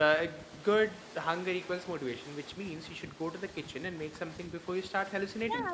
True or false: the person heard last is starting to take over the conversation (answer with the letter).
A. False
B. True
B